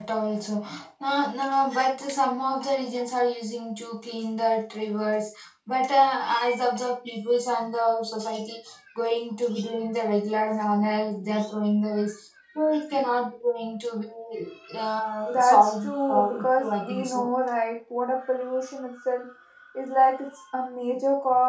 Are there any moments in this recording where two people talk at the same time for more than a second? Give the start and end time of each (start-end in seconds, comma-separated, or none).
15.4-17.3